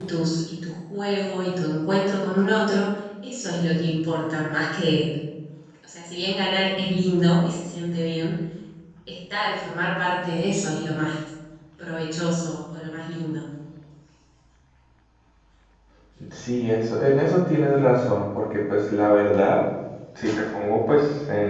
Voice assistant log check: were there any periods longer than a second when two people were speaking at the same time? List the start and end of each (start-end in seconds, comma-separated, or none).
none